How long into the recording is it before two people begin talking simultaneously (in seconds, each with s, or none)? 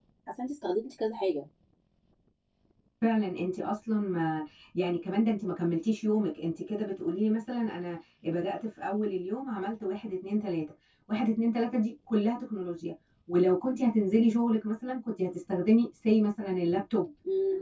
none